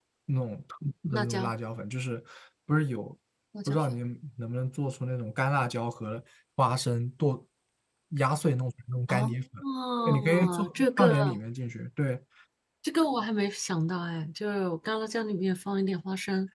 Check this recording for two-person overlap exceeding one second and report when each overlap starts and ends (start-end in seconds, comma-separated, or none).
10.1-11.3